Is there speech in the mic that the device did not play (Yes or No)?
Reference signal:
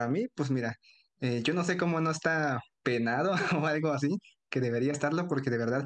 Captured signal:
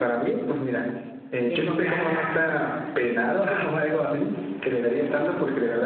Yes